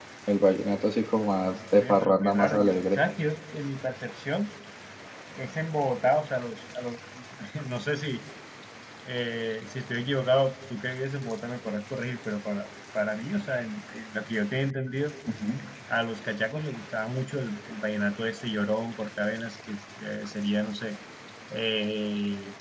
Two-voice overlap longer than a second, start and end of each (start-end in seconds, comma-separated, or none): 1.8-3.0